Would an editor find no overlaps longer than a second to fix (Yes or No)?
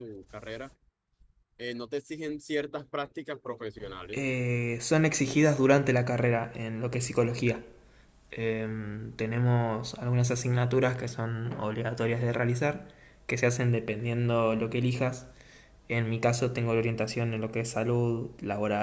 Yes